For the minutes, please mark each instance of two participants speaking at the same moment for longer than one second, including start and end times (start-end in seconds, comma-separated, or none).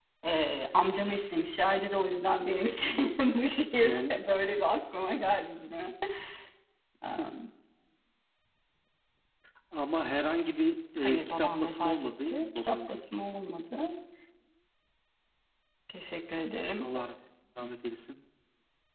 11.0-13.0